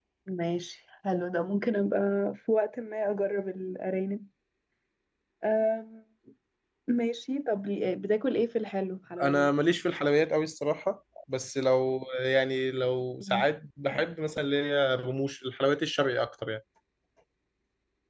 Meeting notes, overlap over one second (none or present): none